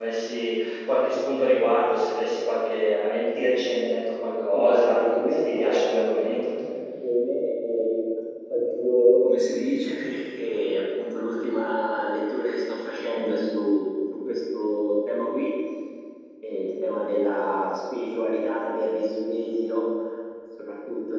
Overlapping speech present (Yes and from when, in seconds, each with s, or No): Yes, from 4.5 s